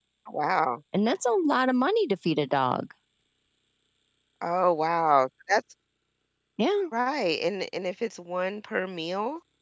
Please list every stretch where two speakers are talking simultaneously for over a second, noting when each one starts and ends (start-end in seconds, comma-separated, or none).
none